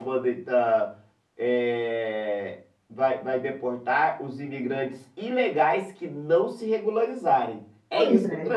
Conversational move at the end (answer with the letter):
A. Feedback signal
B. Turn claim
A